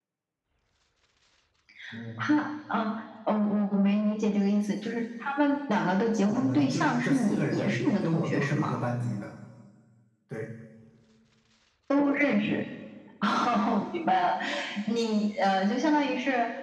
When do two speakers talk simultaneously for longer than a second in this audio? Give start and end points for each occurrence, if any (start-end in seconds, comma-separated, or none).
6.2-8.8